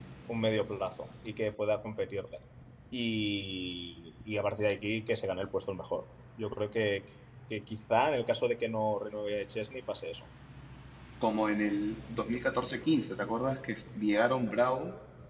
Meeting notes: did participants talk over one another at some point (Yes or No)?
No